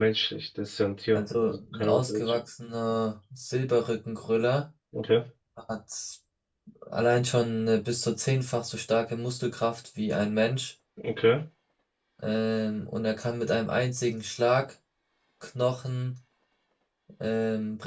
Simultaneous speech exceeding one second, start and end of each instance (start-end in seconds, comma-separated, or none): 1.1-2.4